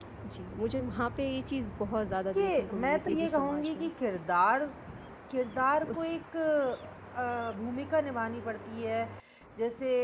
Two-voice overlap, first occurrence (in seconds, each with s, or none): 2.3 s